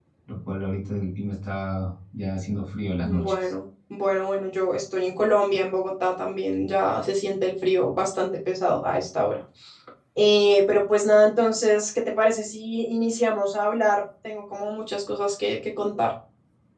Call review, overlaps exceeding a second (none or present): none